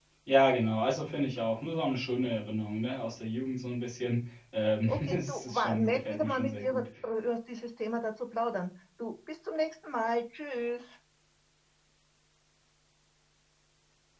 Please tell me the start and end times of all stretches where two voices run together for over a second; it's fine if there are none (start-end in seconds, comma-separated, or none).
4.9-6.8